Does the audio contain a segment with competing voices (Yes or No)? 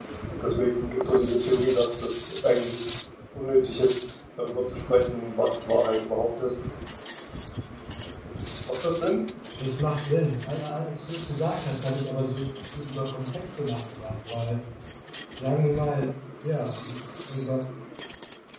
No